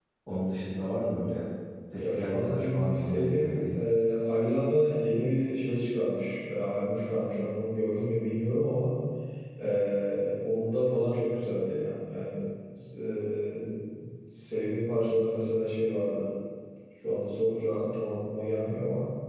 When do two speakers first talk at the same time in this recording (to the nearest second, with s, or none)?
2 s